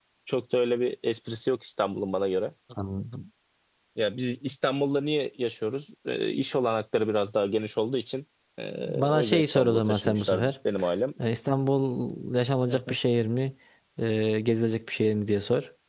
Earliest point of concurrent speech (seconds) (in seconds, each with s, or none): 8.8 s